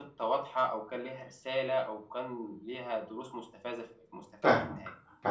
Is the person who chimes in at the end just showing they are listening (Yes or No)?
No